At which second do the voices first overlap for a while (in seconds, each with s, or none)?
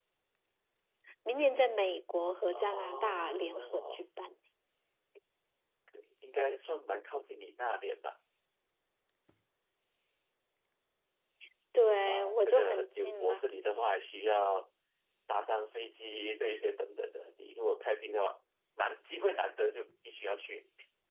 2.5 s